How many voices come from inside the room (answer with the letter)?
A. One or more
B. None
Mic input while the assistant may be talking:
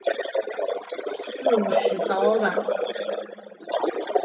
A